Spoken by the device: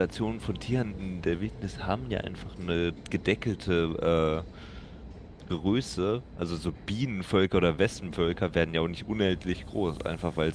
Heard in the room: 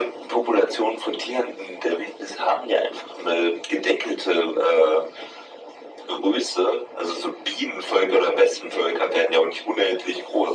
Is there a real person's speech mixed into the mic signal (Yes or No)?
No